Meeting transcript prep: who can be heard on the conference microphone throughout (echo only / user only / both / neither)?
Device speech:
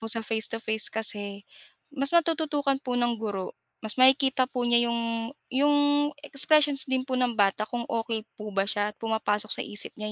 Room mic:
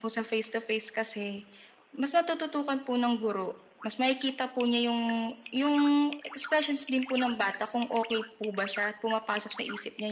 echo only